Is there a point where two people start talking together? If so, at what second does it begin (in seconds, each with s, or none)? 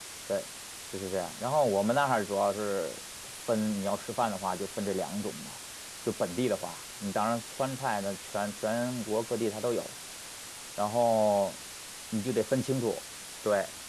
none